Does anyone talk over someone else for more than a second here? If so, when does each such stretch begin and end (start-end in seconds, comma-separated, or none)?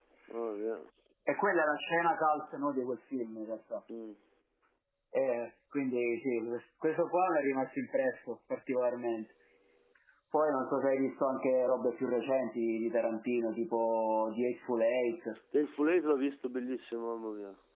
none